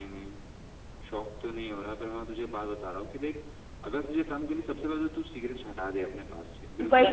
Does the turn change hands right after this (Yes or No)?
Yes